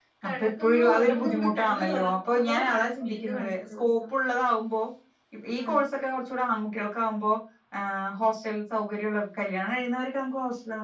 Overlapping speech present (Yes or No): Yes